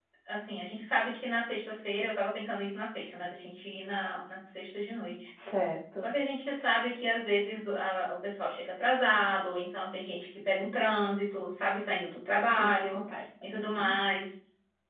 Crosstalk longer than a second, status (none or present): none